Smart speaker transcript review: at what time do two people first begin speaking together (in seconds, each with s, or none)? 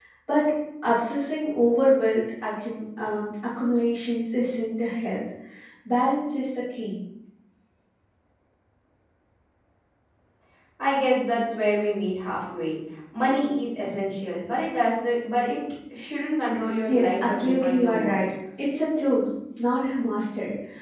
16.9 s